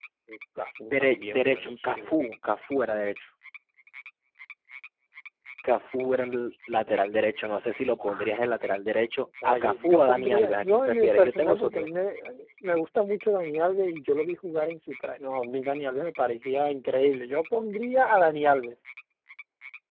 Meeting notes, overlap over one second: present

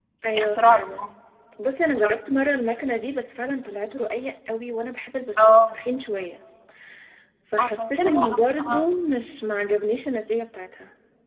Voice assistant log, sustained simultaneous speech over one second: present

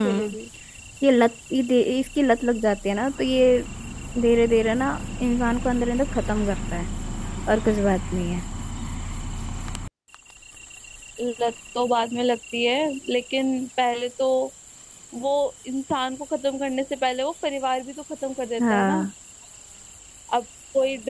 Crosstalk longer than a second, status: none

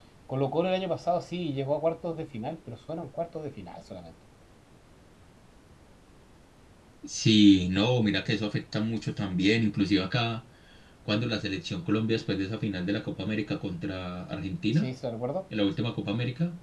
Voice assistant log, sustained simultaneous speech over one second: none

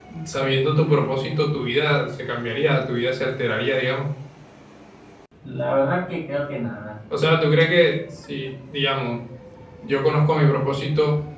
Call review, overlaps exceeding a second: none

